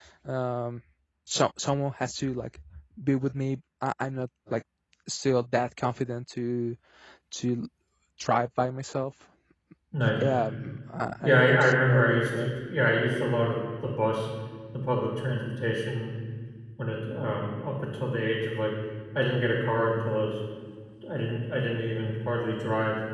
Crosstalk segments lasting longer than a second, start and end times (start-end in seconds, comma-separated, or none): 11.2-12.5